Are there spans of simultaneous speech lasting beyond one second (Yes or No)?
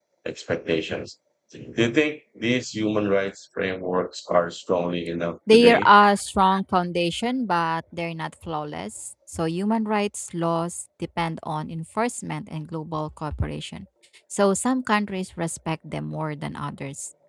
No